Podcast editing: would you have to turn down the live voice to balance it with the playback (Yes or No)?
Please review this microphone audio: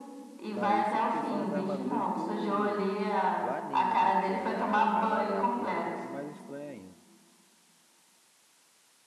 No